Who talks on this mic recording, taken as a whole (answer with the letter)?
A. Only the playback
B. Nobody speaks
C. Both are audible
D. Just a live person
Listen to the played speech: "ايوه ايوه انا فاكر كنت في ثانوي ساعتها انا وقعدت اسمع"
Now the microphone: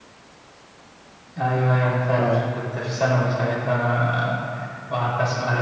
C